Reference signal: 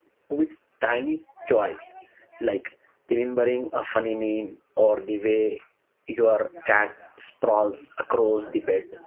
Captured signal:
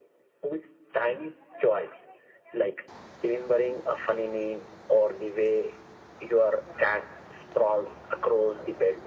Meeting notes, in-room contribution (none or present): none